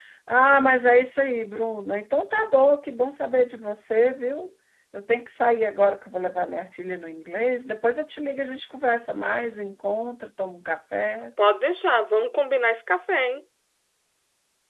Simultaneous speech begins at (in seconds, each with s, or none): none